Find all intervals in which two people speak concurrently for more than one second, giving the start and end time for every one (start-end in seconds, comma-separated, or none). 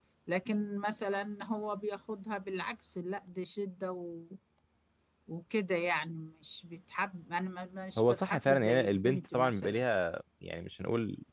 8.0-9.8